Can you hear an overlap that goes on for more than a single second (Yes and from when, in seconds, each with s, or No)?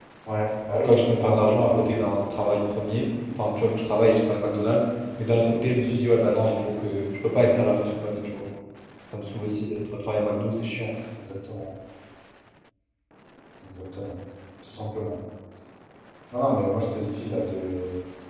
Yes, from 0.8 s